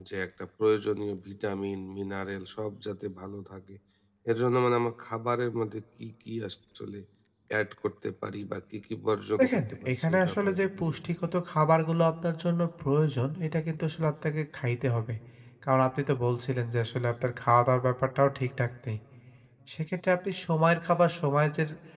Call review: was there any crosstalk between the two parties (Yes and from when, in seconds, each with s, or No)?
Yes, from 9.4 s